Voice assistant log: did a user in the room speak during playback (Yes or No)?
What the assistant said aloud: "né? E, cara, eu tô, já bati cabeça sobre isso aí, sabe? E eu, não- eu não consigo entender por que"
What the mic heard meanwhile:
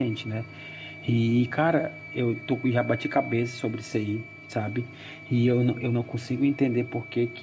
No